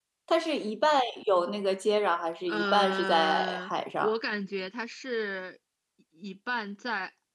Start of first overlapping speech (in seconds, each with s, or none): 2.5 s